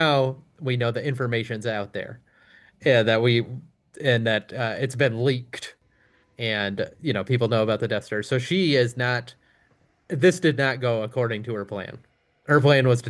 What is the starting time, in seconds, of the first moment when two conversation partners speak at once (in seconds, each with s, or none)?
none